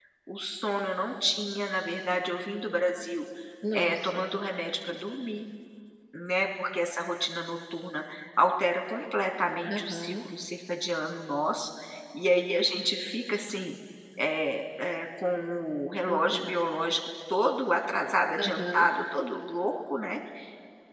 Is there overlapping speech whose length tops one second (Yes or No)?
No